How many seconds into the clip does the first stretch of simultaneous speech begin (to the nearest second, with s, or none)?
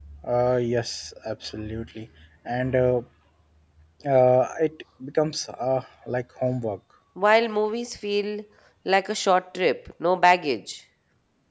none